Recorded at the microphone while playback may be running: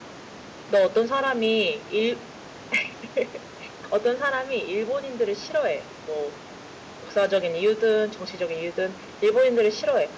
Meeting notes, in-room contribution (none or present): none